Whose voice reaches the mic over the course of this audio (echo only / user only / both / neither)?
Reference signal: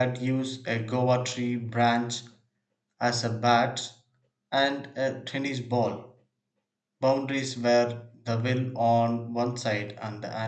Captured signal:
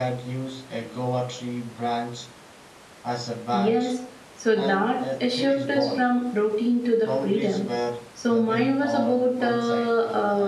both